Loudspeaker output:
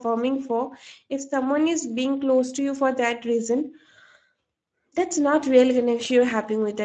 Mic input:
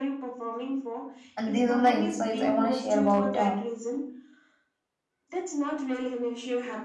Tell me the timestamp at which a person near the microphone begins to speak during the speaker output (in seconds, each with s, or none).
1.4 s